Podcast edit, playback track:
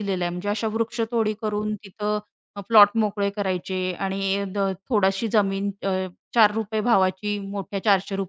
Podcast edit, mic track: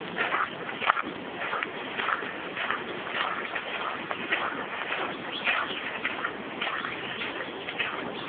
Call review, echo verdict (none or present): none